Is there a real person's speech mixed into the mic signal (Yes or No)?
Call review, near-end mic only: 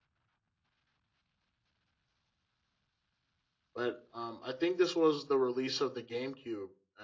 Yes